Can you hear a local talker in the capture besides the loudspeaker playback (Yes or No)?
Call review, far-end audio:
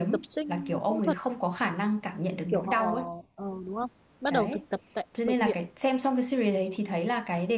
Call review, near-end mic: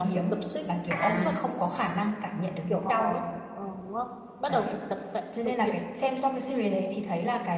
Yes